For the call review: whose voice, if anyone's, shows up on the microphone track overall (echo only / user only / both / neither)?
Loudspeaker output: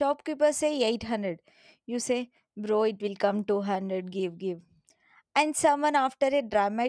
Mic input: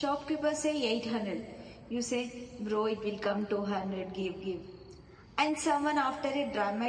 echo only